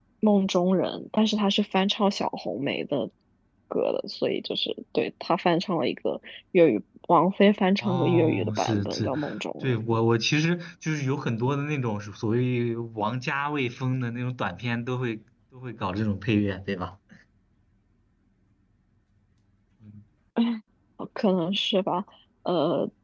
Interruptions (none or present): present